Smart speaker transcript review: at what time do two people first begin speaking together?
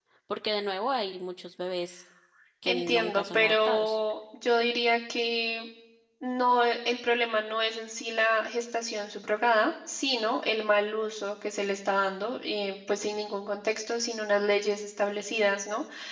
3 s

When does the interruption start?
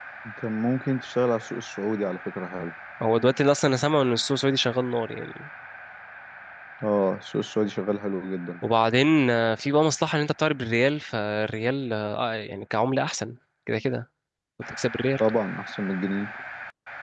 none

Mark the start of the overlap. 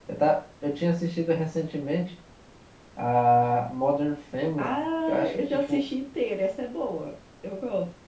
5 s

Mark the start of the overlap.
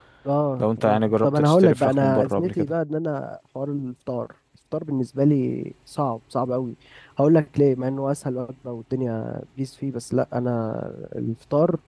1 s

